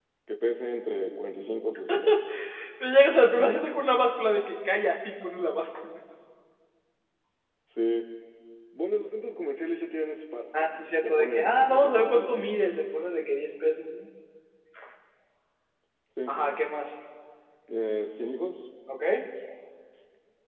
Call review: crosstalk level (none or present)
present